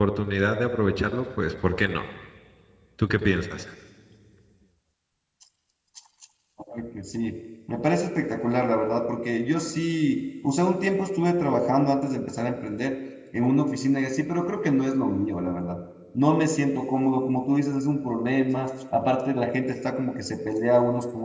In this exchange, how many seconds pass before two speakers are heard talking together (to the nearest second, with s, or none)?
none